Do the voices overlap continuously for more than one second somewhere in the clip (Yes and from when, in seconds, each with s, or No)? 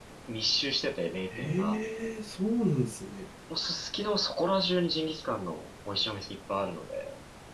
No